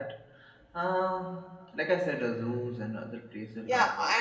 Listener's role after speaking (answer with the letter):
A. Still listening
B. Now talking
B